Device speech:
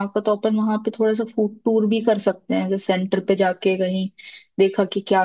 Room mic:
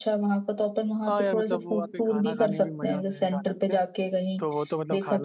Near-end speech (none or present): present